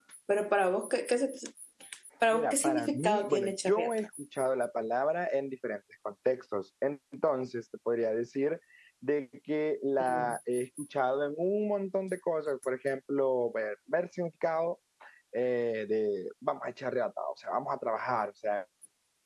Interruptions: present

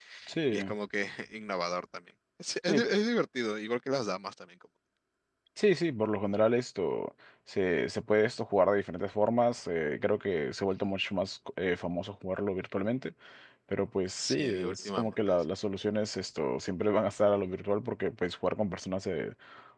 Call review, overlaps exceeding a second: present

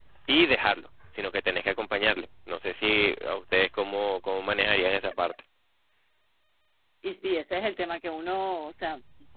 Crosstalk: none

